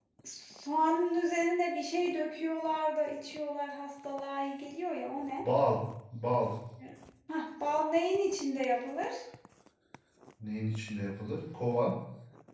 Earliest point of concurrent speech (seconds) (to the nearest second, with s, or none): none